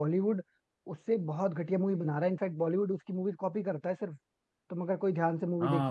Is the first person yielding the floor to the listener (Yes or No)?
Yes